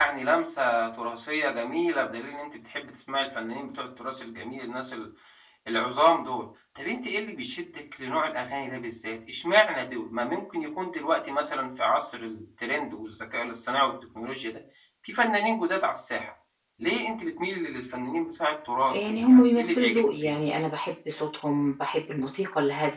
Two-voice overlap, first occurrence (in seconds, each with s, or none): 18.8 s